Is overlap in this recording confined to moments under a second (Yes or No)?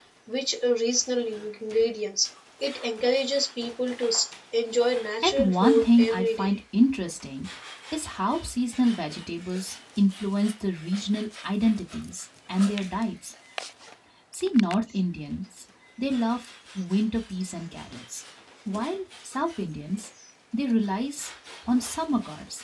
No